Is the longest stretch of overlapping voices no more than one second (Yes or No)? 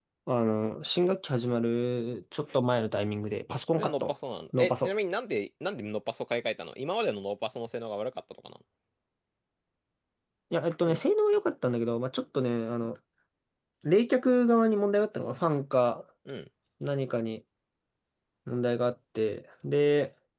Yes